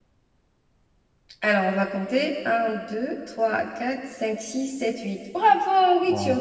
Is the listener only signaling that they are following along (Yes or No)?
No